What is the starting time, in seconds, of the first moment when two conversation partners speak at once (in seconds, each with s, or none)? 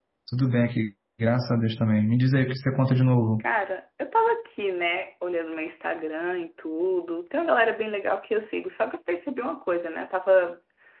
none